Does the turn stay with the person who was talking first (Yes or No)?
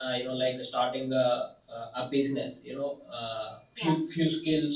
Yes